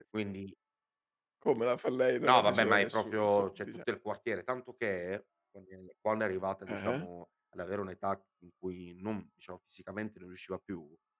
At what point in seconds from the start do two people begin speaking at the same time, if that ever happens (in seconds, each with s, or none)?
2.2 s